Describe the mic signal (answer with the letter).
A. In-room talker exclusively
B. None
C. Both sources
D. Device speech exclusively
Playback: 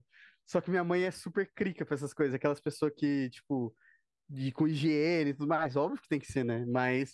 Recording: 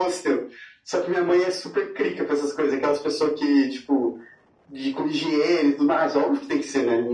D